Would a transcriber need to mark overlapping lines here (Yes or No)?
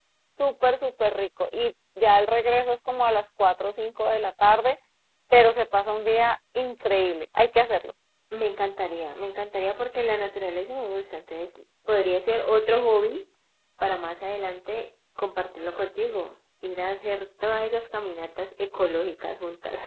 No